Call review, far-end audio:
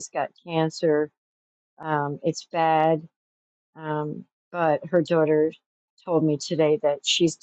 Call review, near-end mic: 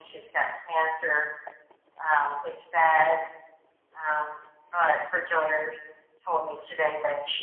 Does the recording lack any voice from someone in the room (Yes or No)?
Yes